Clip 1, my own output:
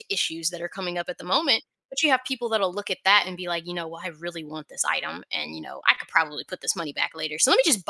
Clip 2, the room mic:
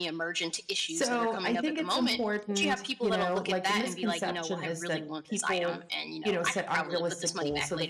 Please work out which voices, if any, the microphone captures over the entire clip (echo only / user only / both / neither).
both